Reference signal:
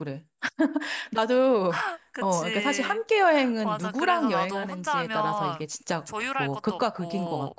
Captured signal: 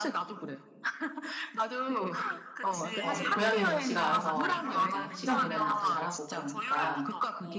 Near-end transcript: 어, 근데 고양이는 지가 알아서 막 이렇게 시간 보내는 것도 잘하고 그러니까,

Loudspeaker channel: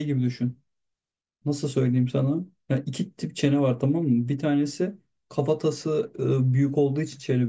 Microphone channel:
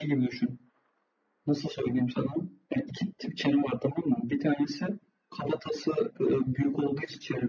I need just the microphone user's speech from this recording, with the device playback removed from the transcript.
none

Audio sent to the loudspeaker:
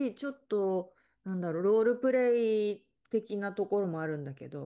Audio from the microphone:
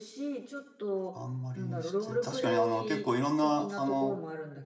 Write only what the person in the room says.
あんまりしてない、確かにあの結構いろんな、あの、

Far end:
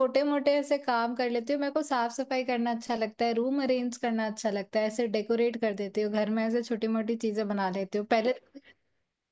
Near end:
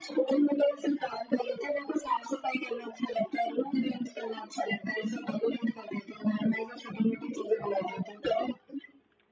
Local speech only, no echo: none

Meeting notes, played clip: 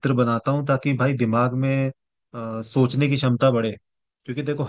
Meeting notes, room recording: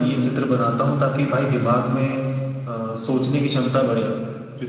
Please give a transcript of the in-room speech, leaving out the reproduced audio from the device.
none

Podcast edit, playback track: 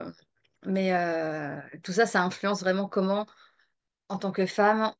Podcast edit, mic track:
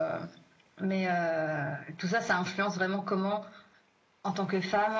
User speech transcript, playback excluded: none

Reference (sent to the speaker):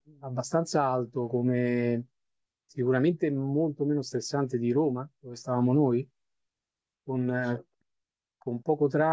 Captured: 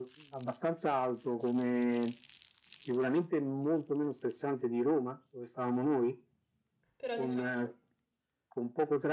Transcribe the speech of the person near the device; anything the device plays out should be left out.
Però diciamo

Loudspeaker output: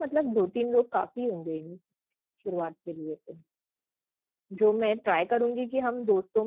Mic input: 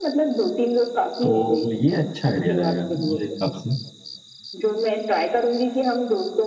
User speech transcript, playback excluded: तो ये अच्छा आइडिया रहेगा मेरे हिसाब से

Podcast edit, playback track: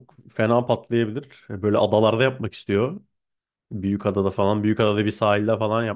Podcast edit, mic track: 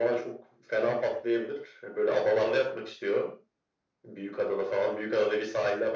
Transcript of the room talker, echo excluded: none

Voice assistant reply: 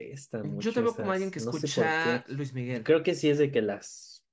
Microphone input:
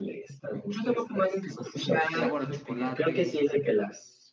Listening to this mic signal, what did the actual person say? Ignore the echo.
Sabor a chocolate.

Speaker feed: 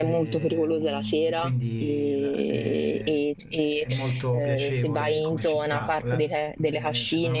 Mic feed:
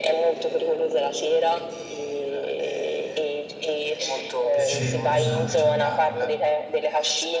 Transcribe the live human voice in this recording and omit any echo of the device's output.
Sì, esatto.

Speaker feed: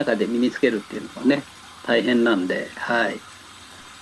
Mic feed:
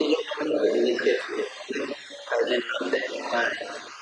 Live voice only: none

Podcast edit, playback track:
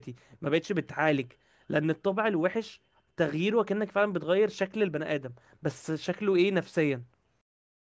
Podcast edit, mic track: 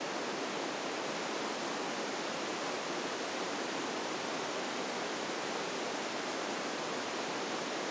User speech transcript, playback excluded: none

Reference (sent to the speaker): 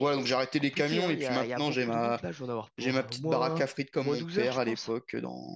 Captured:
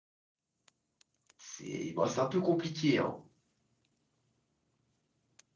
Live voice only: C'est bon, c'est un peu compliqué, hein.

